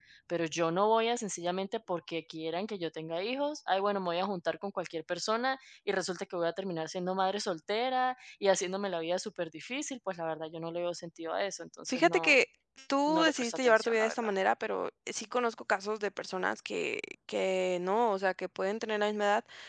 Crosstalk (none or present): present